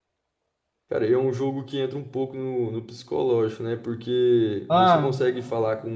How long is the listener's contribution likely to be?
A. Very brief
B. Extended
A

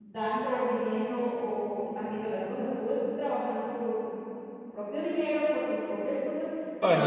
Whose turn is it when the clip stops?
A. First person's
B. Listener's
B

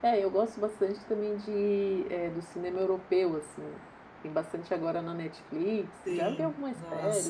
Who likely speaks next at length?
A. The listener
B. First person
A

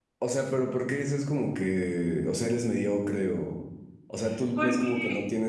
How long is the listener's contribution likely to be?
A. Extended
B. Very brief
B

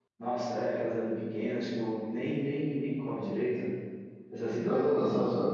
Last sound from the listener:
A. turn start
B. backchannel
A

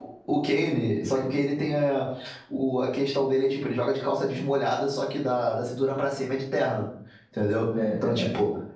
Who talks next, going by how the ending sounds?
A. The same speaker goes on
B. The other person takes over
A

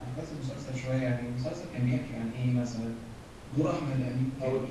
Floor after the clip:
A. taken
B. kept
B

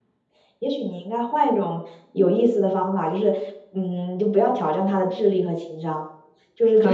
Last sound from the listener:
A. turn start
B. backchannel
B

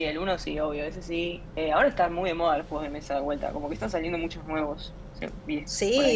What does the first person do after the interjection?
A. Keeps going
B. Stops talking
B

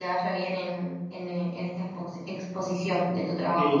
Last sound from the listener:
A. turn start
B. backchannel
A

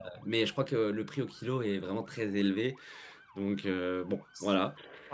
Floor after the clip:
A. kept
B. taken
B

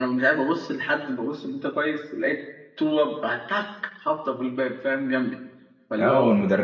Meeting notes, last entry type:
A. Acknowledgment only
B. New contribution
B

